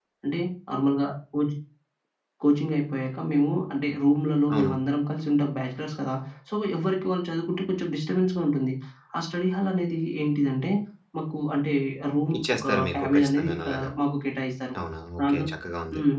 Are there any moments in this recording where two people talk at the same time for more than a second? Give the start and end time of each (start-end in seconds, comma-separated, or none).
12.4-13.9